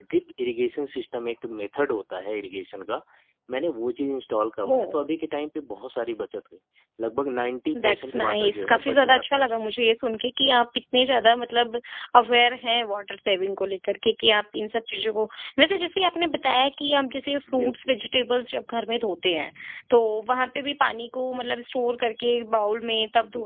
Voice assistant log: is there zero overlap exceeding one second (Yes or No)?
No